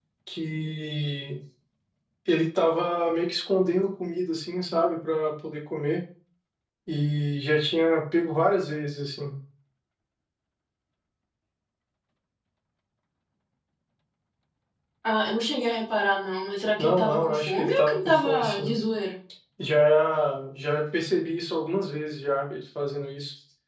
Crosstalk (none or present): present